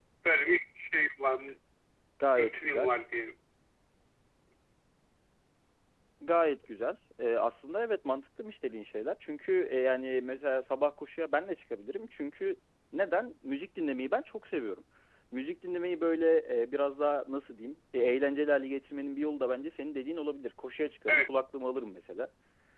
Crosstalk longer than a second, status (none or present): none